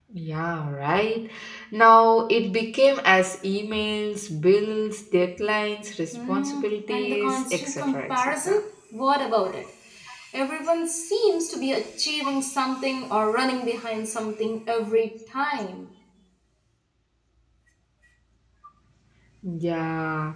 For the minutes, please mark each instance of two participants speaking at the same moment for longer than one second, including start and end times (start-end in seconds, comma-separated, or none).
6.1-8.6